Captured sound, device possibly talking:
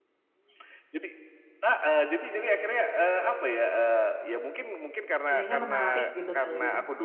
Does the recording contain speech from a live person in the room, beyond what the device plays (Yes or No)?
Yes